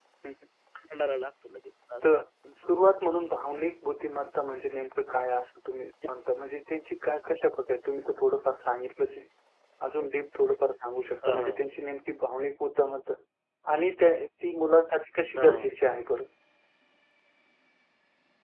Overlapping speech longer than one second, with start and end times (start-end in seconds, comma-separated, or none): none